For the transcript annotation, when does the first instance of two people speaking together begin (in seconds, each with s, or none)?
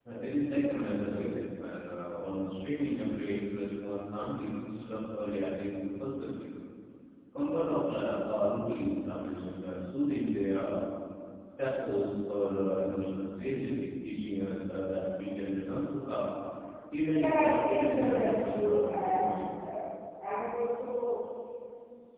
17.1 s